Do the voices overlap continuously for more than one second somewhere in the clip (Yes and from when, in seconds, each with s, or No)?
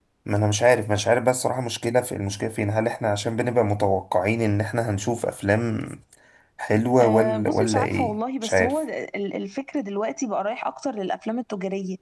Yes, from 7.0 s